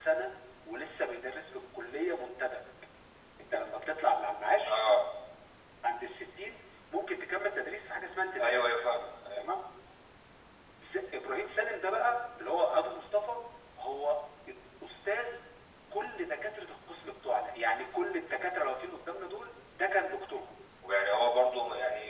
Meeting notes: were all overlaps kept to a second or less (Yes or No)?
Yes